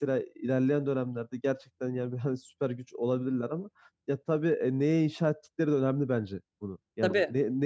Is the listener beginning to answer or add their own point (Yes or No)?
No